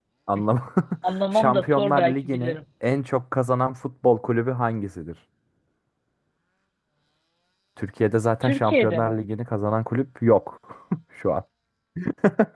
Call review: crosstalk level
present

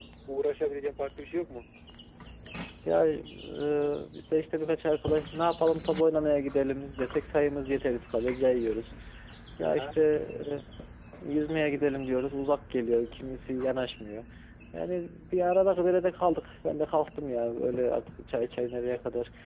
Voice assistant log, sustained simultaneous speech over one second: none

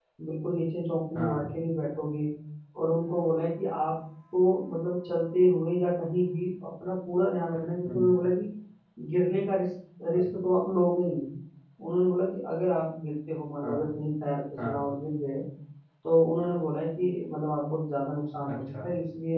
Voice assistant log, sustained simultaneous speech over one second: none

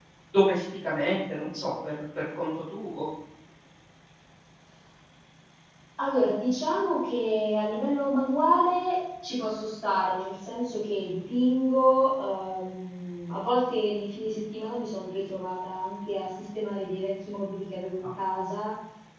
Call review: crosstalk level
none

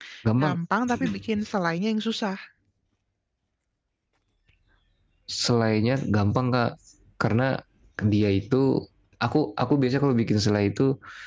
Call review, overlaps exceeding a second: none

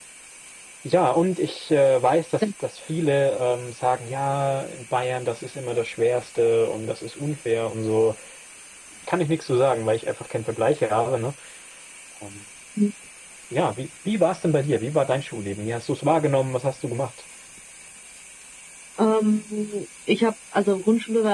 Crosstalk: none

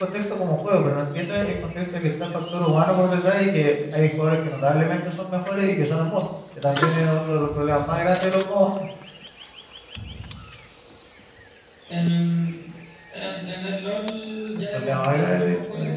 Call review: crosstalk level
present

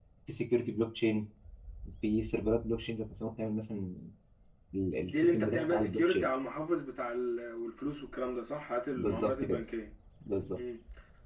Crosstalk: present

